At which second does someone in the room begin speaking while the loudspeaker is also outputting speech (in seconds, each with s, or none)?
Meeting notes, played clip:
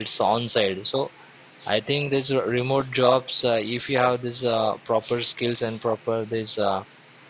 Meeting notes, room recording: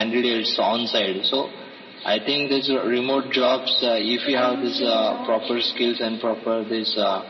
4.2 s